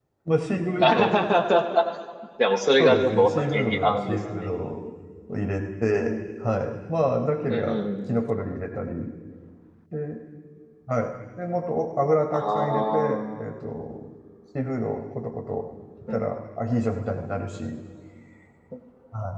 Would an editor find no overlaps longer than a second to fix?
No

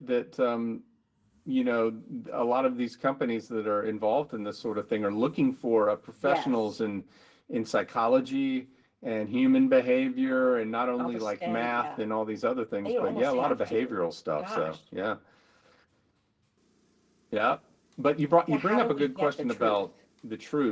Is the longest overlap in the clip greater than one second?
Yes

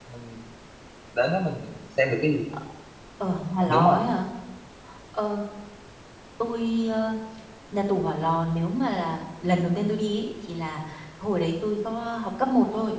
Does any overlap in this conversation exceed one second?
No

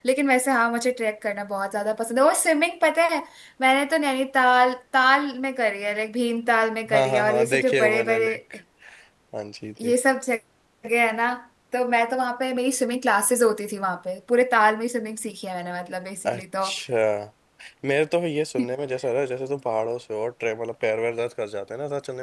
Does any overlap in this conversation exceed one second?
Yes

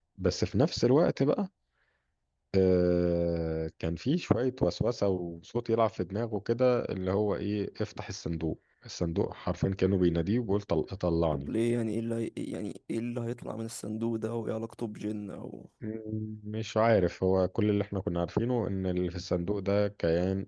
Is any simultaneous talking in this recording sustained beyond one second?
No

